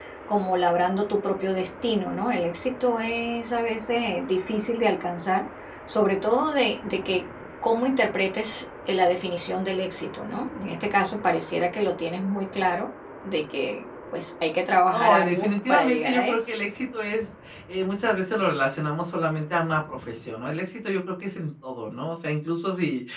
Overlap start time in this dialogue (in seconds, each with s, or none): 14.9 s